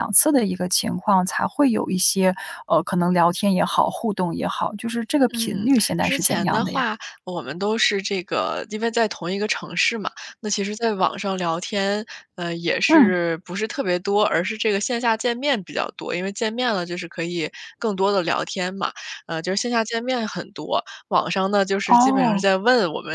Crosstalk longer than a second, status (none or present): present